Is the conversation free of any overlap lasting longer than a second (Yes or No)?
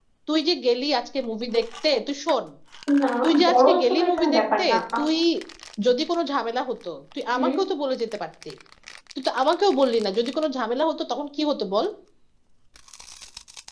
No